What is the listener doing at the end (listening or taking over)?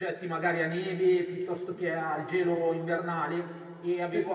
listening